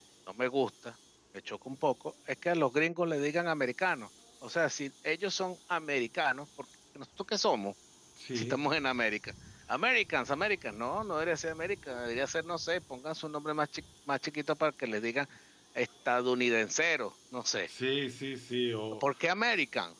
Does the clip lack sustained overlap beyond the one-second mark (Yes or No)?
Yes